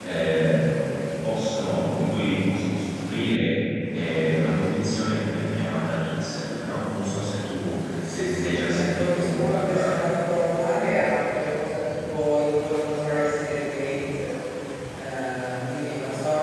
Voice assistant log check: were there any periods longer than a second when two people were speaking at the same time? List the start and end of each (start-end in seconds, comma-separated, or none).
8.1-10.0